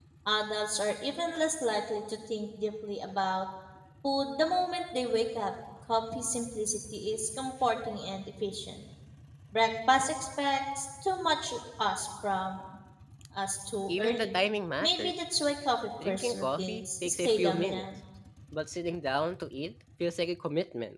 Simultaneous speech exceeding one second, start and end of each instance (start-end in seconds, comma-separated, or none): 16.1-17.8